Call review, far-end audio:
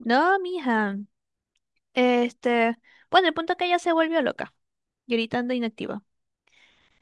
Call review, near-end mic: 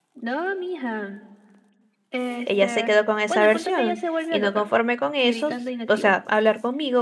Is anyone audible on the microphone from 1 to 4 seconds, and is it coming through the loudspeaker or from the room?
both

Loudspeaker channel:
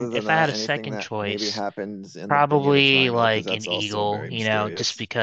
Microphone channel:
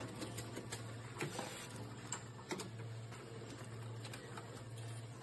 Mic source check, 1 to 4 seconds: neither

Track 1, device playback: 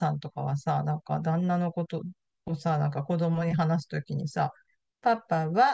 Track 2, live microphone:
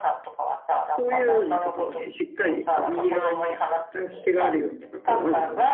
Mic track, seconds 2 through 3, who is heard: both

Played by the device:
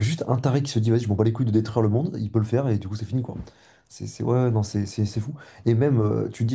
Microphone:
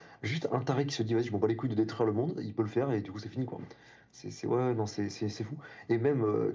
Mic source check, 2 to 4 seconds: echo only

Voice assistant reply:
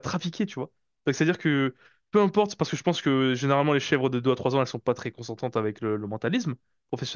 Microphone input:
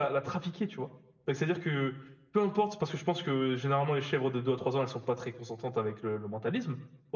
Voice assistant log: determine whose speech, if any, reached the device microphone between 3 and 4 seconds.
echo only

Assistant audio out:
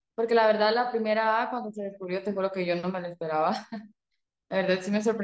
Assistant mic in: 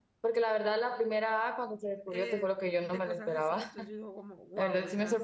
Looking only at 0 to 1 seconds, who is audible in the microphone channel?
echo only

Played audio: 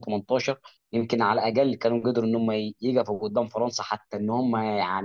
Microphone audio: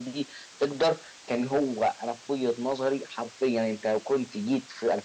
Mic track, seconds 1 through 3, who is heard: user only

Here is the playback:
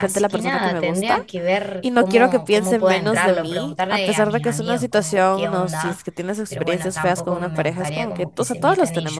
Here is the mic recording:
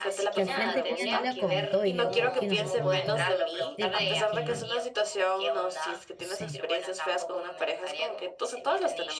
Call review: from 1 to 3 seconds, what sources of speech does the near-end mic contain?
both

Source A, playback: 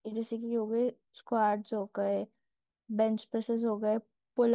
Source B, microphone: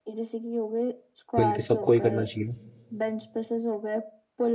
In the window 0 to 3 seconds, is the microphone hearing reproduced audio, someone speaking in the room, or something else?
both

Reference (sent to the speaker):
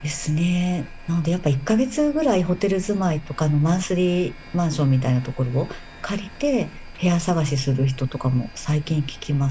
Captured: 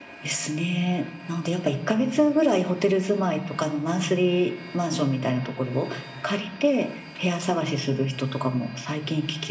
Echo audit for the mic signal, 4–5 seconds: echo only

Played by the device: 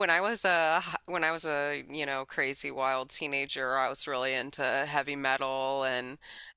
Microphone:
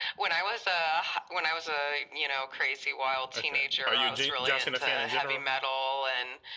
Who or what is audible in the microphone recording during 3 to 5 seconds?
both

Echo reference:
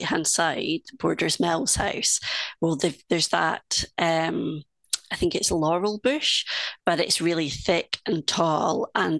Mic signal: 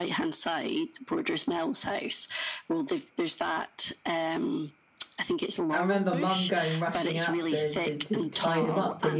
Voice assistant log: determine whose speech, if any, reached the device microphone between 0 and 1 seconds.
echo only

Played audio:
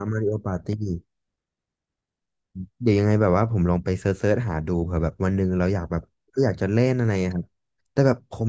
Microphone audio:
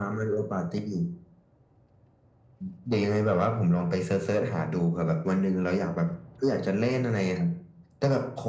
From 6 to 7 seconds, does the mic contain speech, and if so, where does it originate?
echo only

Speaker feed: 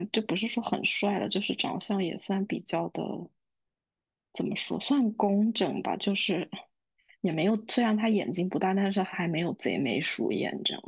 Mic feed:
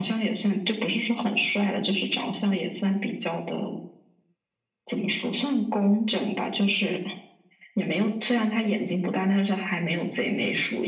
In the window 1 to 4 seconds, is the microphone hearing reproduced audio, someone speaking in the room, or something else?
echo only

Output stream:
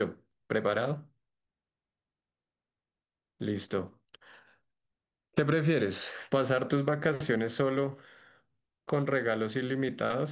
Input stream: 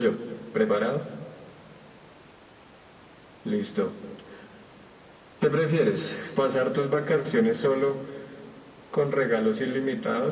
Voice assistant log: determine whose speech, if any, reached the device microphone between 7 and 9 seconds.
echo only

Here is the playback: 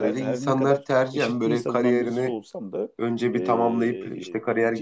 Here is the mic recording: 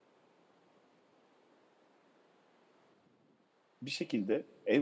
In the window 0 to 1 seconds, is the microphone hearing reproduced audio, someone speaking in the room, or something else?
neither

